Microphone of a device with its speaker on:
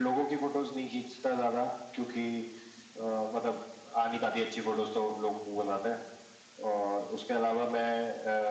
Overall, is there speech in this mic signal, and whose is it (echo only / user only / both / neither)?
echo only